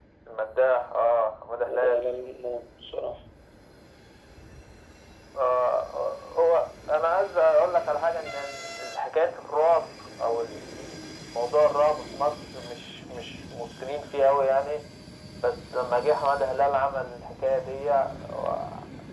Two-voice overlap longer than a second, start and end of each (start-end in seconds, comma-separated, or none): none